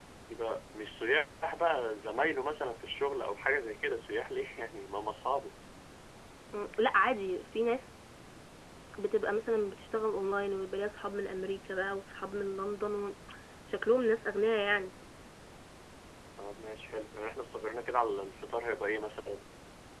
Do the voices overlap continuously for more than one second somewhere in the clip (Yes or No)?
No